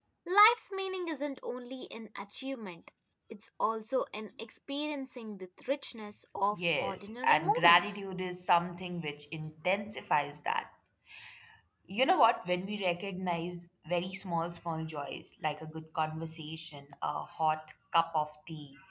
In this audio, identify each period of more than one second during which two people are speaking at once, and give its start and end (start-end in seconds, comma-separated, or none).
6.5-8.0